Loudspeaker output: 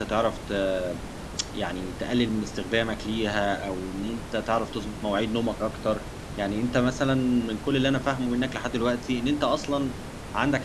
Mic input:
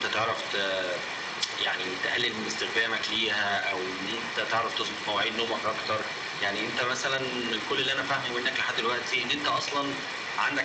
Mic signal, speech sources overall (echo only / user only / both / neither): echo only